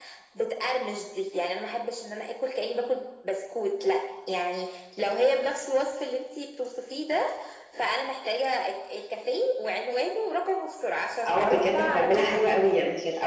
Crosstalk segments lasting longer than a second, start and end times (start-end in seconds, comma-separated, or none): 11.3-12.6